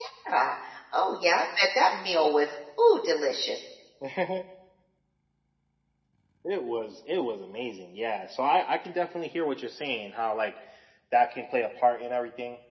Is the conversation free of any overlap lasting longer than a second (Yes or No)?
Yes